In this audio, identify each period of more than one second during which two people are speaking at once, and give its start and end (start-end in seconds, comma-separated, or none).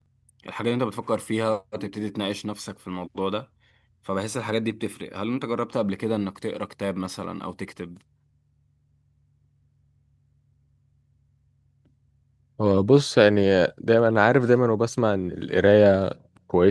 none